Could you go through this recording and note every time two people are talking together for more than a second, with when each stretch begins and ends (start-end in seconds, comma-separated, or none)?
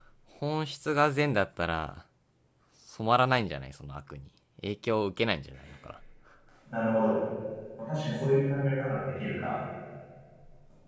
none